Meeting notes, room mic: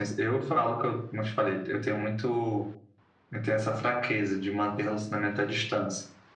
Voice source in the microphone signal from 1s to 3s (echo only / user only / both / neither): echo only